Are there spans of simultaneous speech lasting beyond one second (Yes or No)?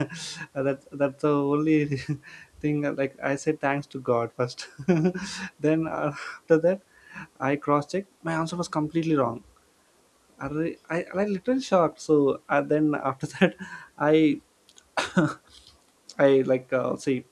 No